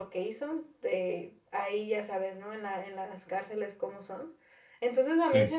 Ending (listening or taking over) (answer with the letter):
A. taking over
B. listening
B